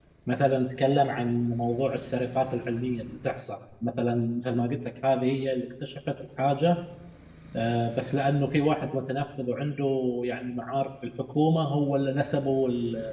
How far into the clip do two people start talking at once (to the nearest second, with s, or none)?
none